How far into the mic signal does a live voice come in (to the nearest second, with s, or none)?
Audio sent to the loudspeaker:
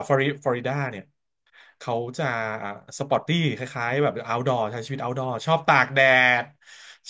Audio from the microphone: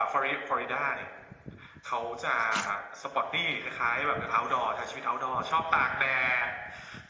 none